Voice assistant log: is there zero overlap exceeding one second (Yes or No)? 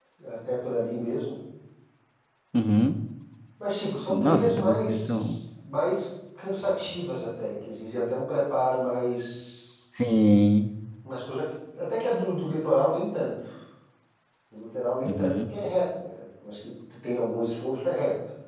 No